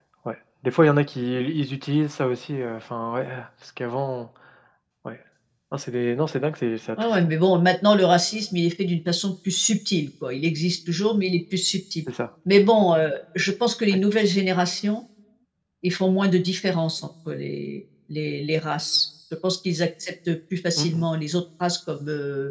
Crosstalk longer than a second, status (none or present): none